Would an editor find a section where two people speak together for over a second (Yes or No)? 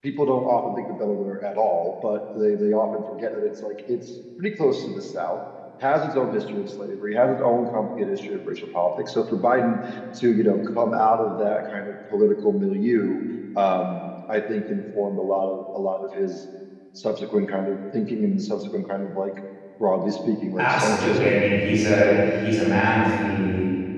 Yes